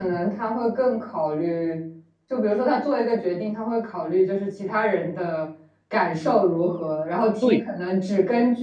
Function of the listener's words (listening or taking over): listening